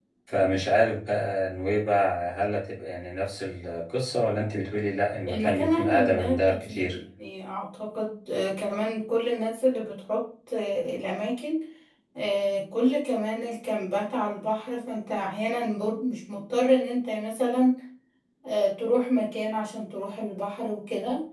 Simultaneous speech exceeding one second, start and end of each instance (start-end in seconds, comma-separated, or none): 5.3-7.0